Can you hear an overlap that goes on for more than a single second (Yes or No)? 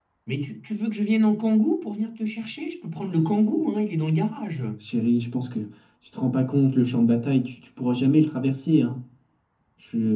No